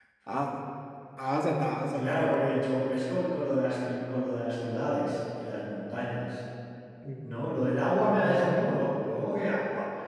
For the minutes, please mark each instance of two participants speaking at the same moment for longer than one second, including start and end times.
none

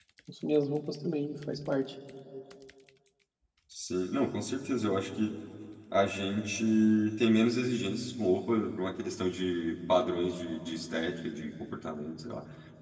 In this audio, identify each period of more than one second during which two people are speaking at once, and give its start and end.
none

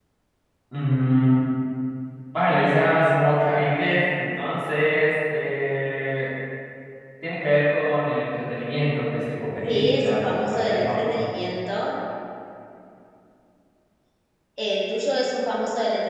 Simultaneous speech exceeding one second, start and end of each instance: 9.7-11.2

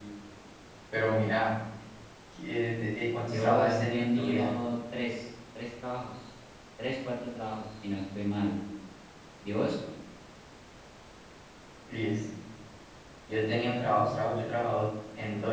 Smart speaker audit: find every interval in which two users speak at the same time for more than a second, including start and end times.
3.3-4.6

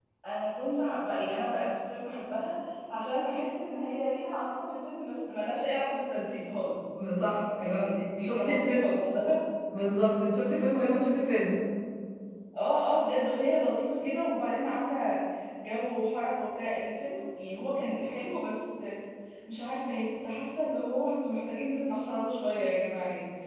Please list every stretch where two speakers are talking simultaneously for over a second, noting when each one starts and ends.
7.6-8.9

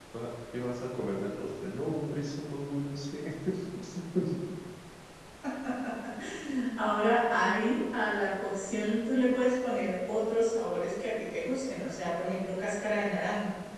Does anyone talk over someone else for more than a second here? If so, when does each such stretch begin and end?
none

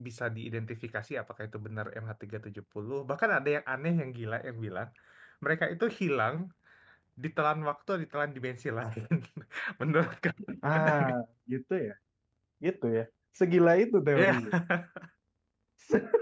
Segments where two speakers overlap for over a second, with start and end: none

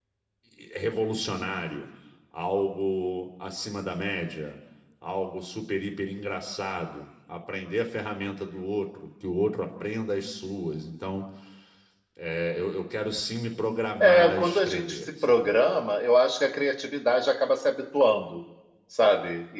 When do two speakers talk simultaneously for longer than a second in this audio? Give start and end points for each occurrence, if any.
14.0-15.6

